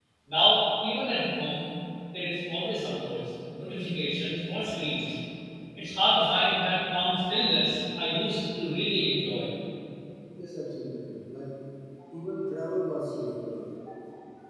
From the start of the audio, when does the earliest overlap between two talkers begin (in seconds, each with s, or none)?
none